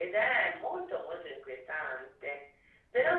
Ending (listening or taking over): listening